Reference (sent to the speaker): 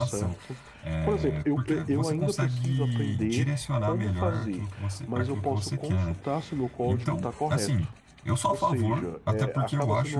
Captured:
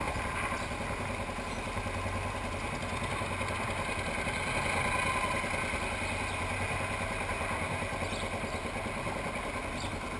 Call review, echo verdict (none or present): none